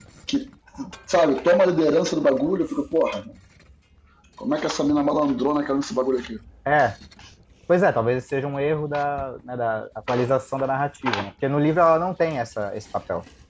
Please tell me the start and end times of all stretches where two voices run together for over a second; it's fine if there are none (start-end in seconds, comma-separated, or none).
none